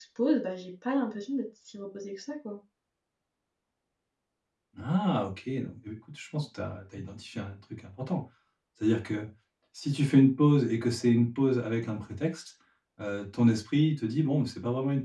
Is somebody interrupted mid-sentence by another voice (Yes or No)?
No